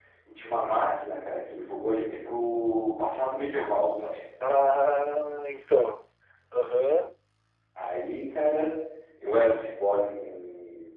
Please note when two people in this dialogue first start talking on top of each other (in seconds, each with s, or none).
none